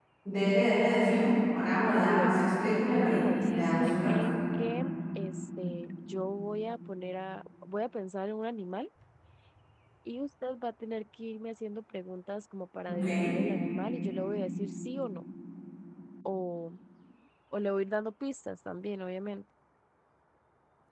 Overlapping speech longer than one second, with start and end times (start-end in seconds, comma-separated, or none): 2.0-4.1